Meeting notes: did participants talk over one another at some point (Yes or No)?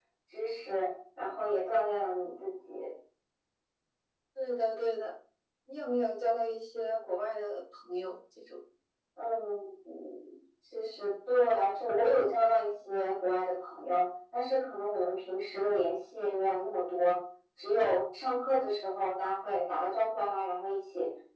No